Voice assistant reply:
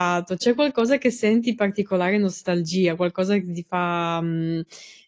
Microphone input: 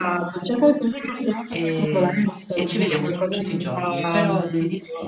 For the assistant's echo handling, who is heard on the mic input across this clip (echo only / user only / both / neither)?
both